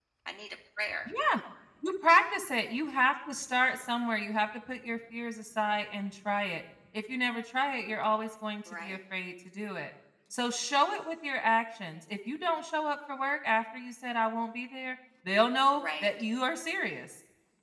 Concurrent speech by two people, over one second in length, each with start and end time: none

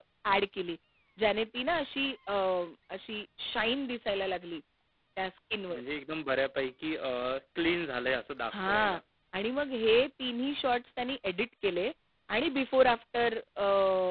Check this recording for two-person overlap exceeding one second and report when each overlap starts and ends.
none

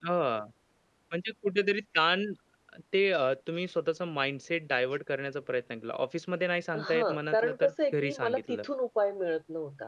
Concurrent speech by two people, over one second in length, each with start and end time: 6.8-8.4

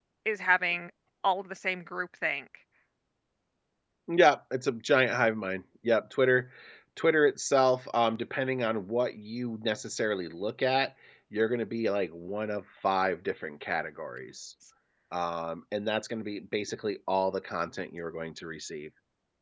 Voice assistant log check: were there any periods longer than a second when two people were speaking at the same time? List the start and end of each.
none

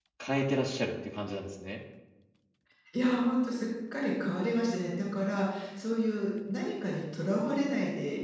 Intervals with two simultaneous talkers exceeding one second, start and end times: none

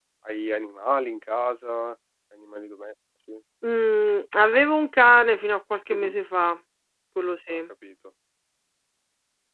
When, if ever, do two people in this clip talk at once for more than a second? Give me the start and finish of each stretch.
none

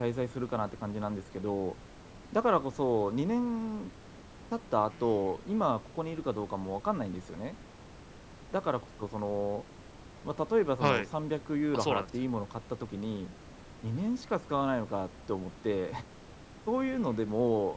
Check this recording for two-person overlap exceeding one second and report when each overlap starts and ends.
none

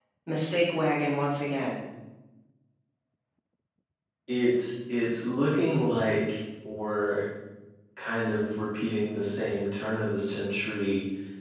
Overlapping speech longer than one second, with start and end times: none

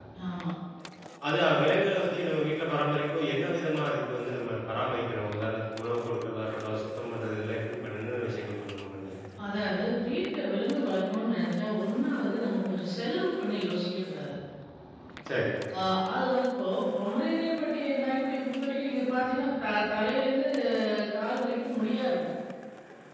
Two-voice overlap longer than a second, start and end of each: none

